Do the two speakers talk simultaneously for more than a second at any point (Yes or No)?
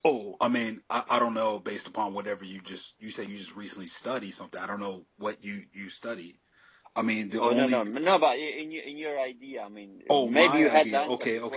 Yes